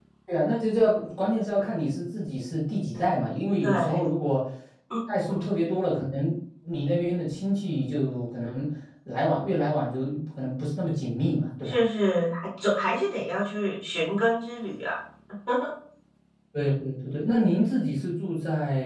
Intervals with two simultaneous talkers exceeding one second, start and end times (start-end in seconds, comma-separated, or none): none